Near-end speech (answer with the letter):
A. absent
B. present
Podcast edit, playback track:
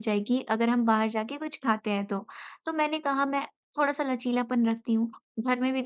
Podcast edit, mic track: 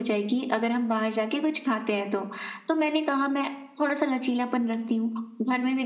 A